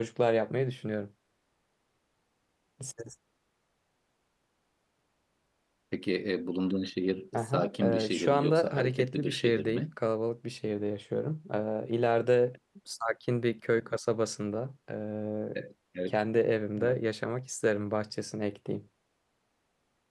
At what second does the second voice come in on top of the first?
7.3 s

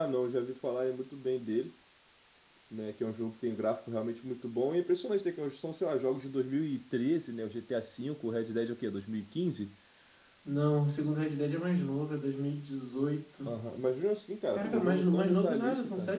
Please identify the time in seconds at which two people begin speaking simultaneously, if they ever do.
14.5 s

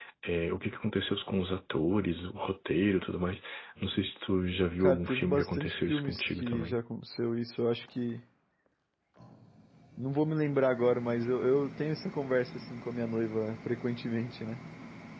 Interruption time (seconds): 4.8 s

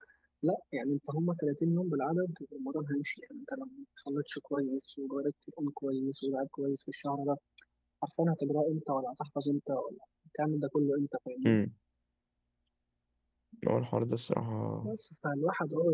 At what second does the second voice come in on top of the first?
none

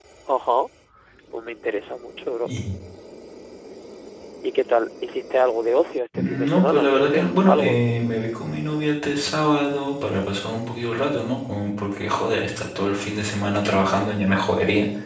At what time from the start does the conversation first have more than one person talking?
6.1 s

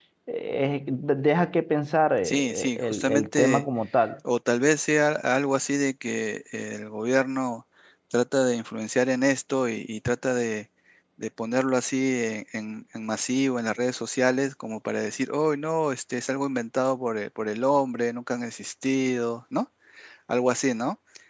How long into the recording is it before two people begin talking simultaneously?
2.2 s

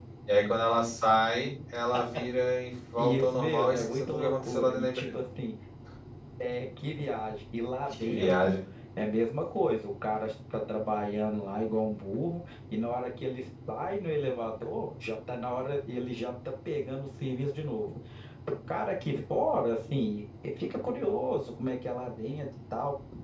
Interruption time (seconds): 3.0 s

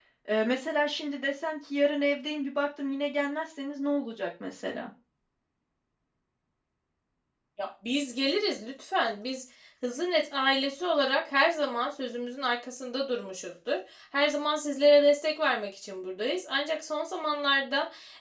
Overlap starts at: none

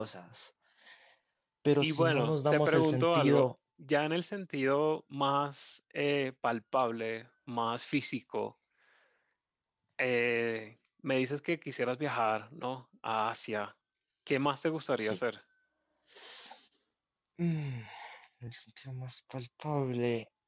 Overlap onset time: 1.8 s

